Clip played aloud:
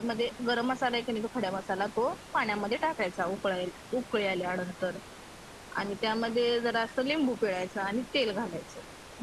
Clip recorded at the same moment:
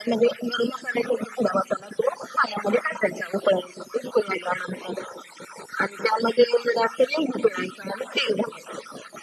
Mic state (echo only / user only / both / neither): echo only